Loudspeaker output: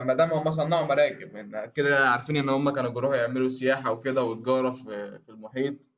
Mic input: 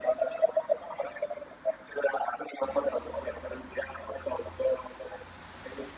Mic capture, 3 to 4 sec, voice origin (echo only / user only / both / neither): echo only